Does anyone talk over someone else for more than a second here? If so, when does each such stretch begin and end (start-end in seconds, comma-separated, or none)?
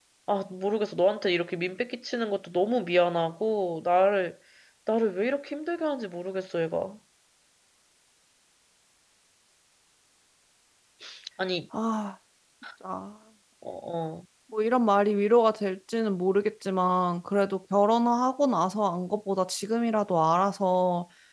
none